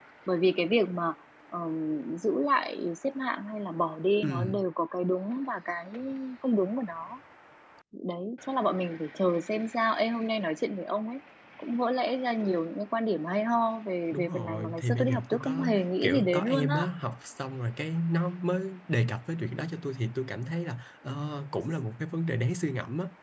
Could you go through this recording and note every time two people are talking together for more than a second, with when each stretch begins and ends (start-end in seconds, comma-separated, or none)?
14.1-16.8